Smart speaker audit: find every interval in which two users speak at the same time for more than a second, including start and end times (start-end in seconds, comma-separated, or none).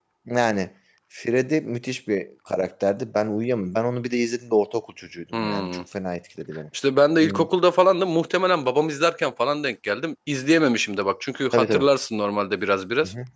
none